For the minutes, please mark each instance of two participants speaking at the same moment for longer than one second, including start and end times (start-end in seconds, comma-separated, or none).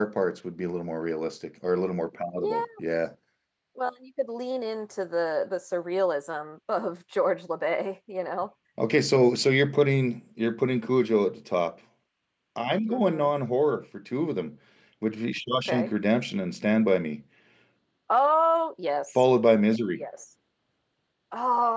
none